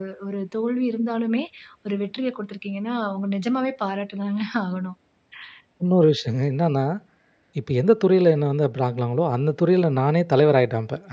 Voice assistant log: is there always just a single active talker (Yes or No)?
Yes